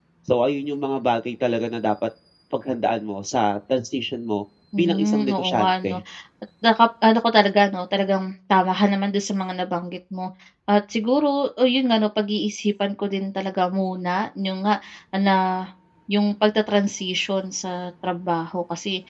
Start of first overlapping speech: 4.7 s

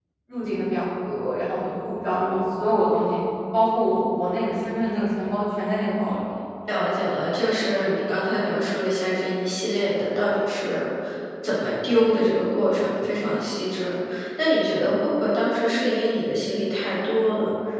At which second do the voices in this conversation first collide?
none

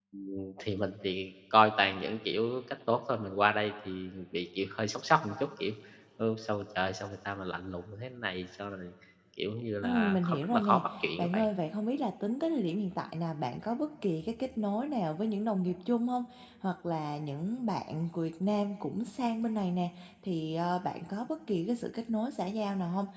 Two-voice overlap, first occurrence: 9.8 s

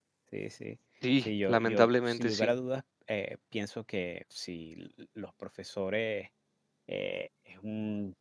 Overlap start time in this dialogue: 1.2 s

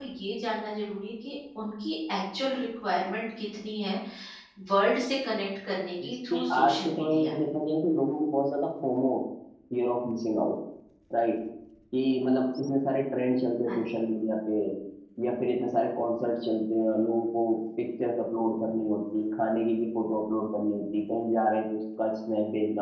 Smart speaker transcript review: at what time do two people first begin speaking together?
6.0 s

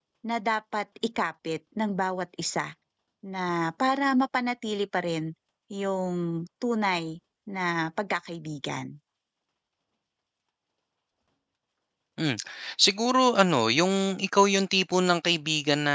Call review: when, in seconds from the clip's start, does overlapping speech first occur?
none

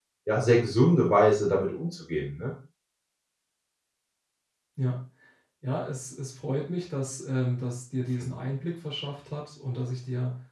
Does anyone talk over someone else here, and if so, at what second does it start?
none

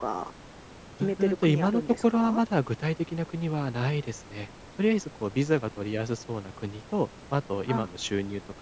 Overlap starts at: 1.0 s

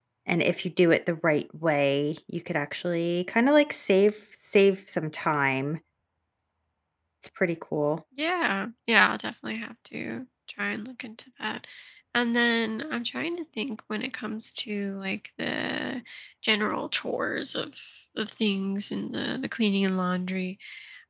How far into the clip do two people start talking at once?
none

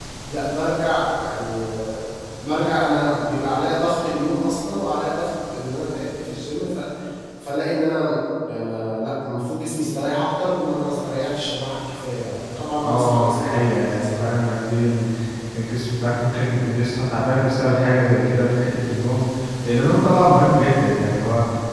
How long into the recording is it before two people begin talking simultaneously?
12.8 s

